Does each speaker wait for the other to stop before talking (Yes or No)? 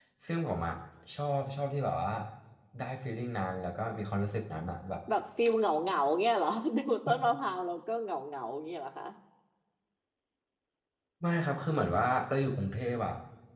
Yes